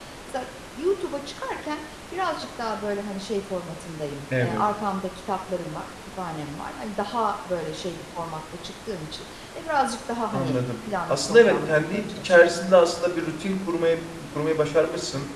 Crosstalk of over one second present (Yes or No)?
Yes